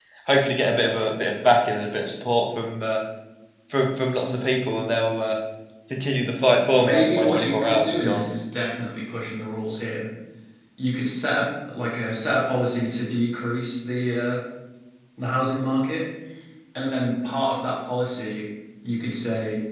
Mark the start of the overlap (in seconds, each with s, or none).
6.8 s